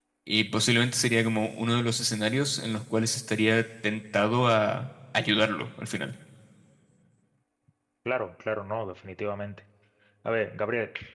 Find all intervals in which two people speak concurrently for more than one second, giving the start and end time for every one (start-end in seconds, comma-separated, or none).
none